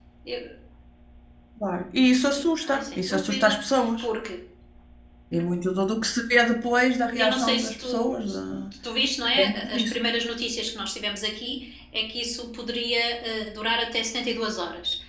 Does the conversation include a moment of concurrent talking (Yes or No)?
Yes